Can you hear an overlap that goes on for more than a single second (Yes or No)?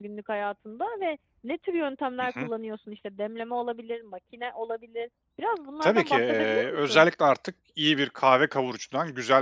Yes